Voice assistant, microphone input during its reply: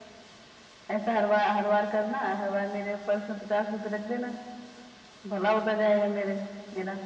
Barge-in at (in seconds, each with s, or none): none